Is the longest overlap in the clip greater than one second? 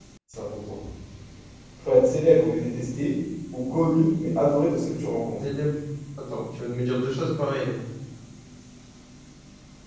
No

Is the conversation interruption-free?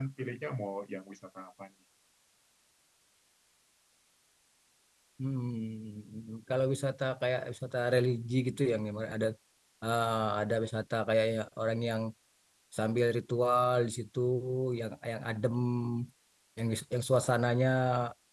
Yes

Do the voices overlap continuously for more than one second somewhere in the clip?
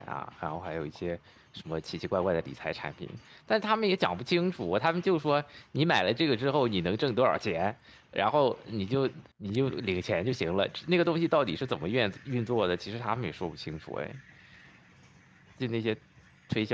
No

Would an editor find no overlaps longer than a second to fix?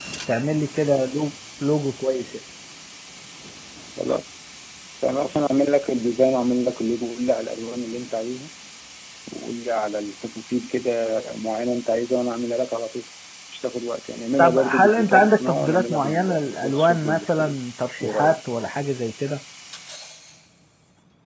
No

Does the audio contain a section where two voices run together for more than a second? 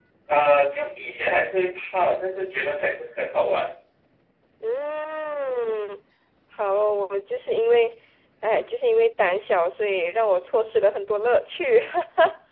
No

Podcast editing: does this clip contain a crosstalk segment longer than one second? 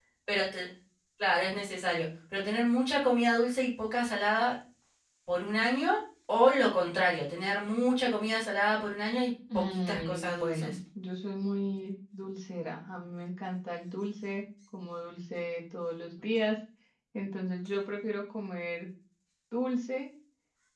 Yes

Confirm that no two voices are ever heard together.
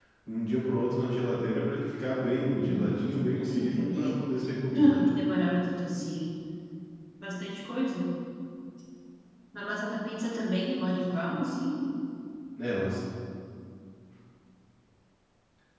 No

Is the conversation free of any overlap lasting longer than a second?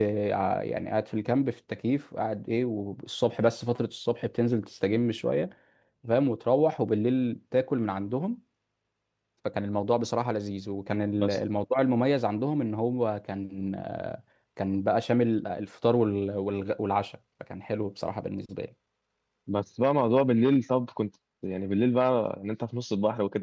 Yes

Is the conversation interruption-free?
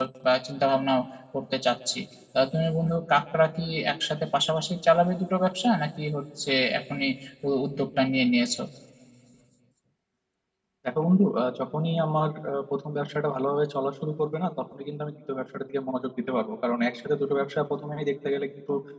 Yes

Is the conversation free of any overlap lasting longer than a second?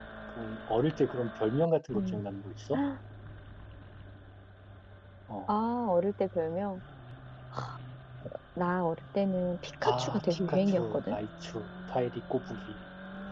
No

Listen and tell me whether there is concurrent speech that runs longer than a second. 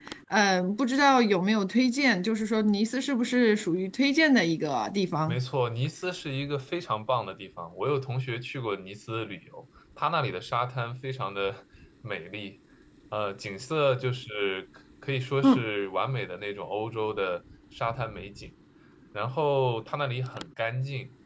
No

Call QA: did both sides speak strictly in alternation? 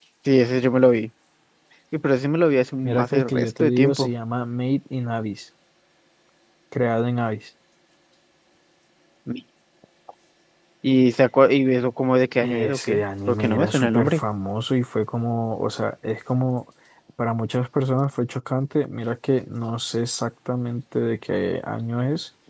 No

